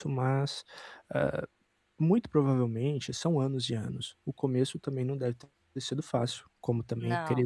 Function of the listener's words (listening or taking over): listening